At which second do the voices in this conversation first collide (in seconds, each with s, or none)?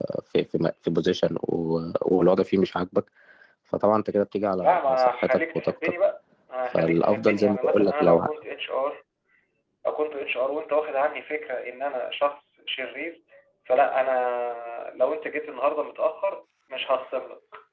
4.6 s